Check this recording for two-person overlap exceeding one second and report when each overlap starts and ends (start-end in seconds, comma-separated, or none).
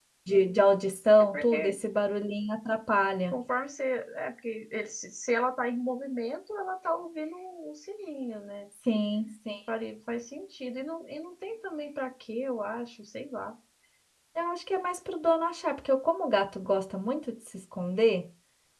none